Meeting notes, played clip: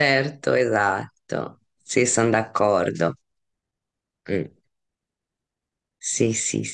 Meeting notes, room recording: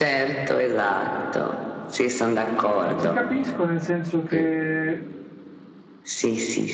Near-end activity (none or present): present